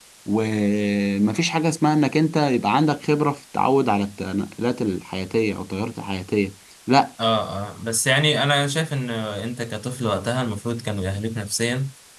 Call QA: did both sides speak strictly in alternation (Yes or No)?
Yes